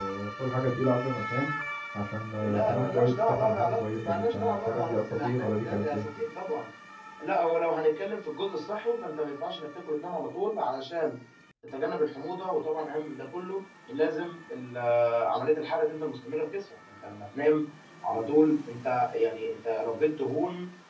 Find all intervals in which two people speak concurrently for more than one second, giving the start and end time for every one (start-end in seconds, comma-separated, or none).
2.4-6.1